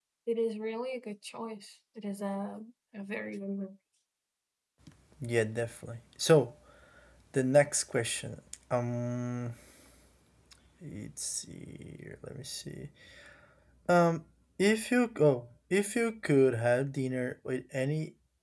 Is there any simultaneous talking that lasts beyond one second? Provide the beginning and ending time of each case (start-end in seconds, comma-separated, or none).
none